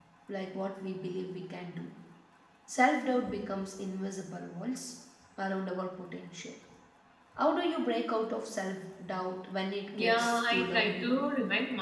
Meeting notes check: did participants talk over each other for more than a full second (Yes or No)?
Yes